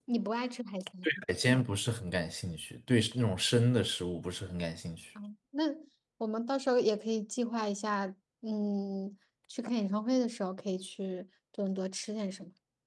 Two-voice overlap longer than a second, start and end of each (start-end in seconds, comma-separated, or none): none